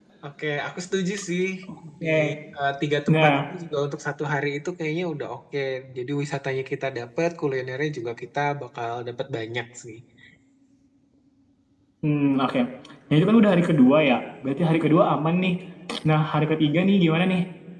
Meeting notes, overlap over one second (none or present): none